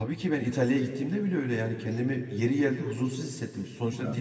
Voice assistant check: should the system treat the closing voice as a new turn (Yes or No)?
No